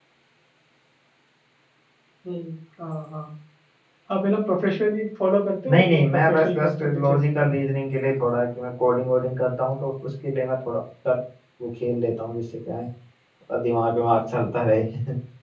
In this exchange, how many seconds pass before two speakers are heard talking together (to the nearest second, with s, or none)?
6 s